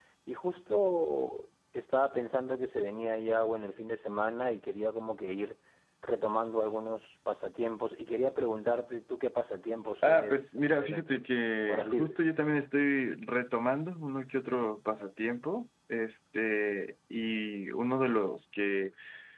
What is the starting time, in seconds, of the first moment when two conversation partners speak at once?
10.0 s

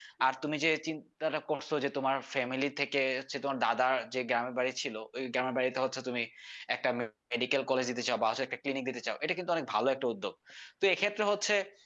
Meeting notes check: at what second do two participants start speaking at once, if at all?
none

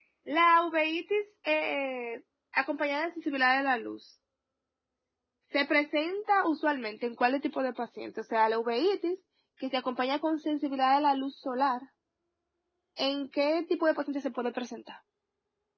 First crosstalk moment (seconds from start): none

